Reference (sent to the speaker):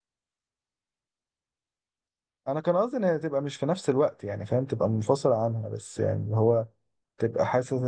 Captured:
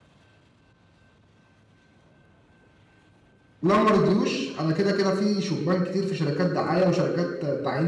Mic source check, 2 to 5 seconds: user only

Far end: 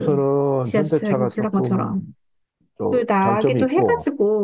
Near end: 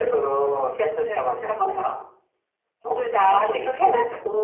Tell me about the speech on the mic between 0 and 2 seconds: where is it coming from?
echo only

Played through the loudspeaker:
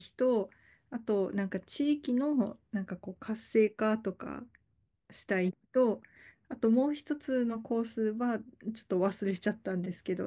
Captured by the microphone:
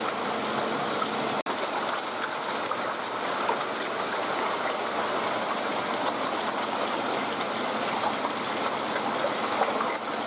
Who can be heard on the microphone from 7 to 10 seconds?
neither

